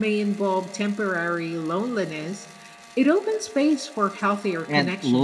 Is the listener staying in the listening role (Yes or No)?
No